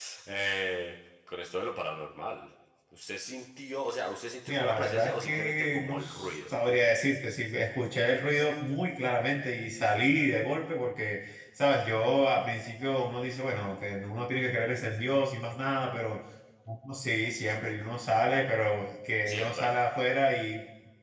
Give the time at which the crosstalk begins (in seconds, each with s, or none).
4.5 s